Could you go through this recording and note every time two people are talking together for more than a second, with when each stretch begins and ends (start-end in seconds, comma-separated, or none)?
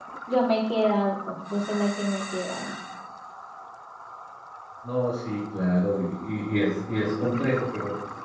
none